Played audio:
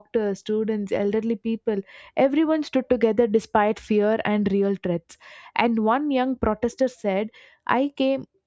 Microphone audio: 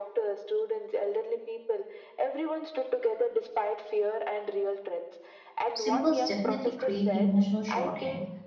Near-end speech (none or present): present